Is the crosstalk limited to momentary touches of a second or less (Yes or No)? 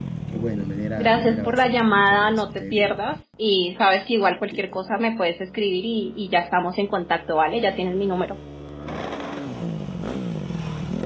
No